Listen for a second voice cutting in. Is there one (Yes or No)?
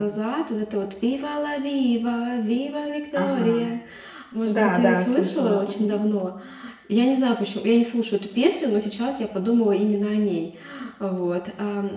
Yes